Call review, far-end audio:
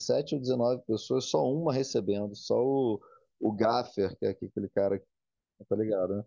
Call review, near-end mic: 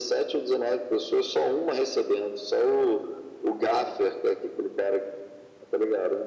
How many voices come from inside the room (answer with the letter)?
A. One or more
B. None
B